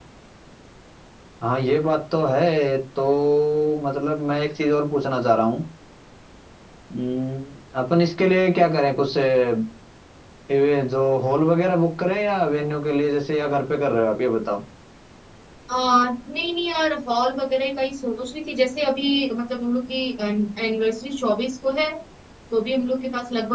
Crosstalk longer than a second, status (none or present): none